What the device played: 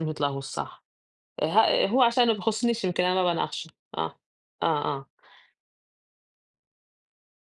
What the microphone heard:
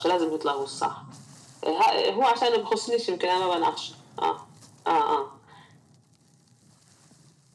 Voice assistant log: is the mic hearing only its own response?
Yes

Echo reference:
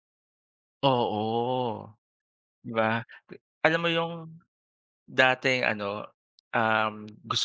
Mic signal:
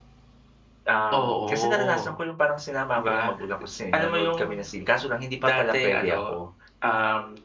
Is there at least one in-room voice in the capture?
Yes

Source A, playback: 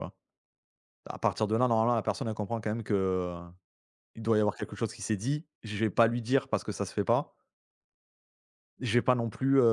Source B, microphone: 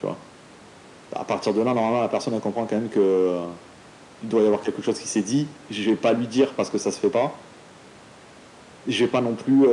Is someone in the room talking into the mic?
No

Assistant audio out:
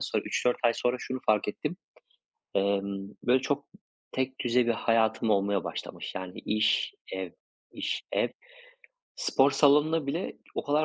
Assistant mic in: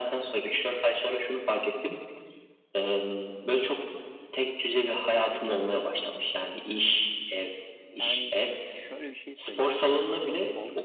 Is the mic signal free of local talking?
No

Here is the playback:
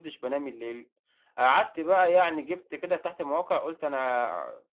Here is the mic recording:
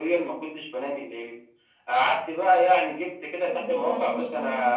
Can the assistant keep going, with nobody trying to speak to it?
No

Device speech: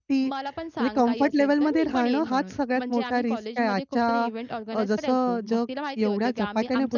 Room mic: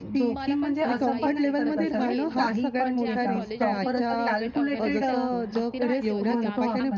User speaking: Yes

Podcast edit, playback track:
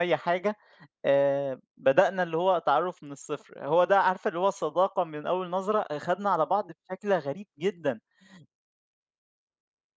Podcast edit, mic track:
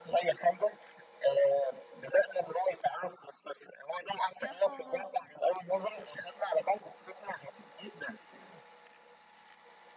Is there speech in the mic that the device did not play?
Yes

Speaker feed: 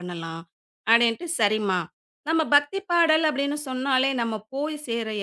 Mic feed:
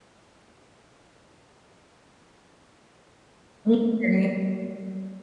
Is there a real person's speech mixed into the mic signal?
Yes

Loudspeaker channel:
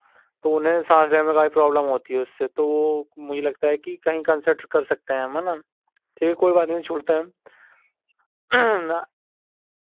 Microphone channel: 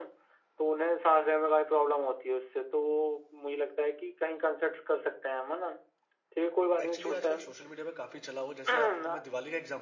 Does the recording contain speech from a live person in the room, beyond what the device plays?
Yes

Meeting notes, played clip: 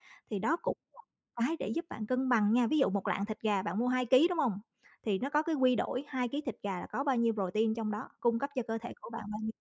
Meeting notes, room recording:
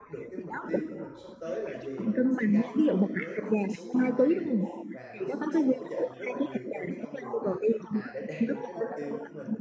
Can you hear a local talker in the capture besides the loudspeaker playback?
Yes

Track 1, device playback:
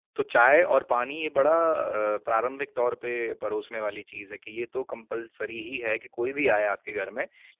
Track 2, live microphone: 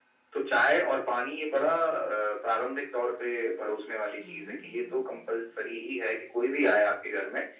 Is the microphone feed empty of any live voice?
No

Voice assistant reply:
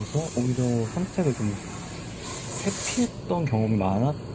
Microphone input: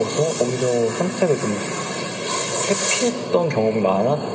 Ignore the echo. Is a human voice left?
No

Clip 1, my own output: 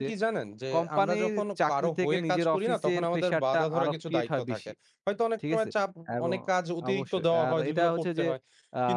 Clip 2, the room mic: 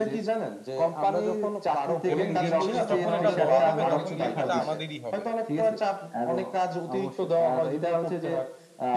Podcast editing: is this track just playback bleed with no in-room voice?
No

